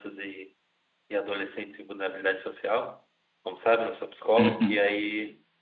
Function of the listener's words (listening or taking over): listening